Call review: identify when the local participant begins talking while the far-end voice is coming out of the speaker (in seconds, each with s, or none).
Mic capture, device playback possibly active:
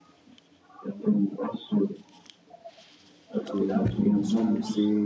3.5 s